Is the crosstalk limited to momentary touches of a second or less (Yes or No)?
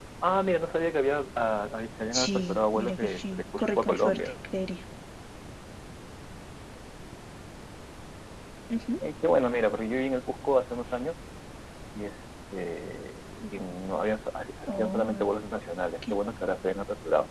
No